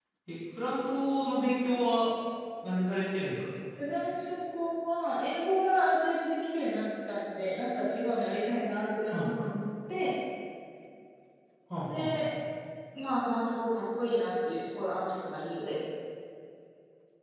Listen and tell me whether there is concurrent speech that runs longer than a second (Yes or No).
No